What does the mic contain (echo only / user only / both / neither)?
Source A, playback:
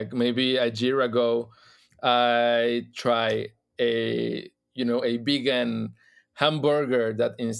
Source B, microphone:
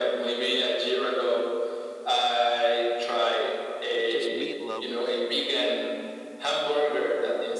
both